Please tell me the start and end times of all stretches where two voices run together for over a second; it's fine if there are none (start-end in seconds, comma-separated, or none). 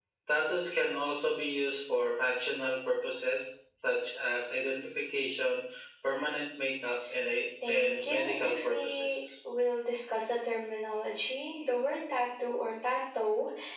7.7-9.2